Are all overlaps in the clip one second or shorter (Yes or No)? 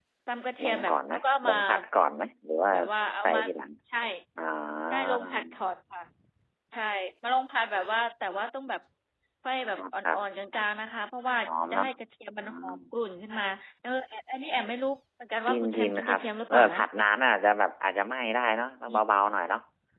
No